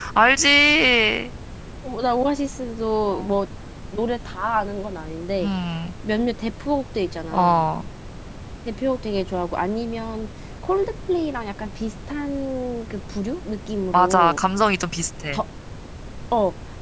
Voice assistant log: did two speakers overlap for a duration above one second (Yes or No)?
No